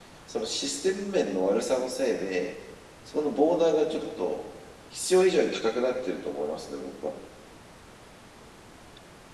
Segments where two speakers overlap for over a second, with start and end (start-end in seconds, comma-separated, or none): none